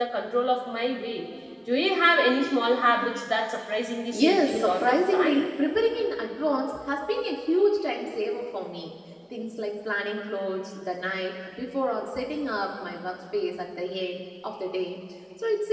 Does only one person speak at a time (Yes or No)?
No